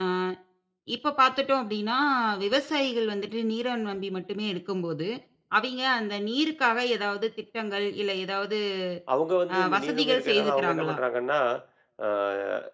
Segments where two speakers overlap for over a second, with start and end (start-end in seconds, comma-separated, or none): 9.5-11.0